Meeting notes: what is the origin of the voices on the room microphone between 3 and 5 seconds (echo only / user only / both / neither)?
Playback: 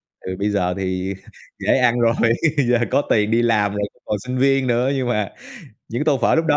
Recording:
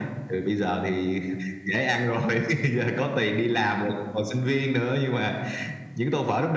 echo only